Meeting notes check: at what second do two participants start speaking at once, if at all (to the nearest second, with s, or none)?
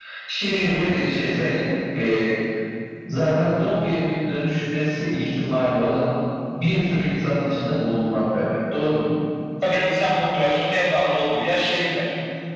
none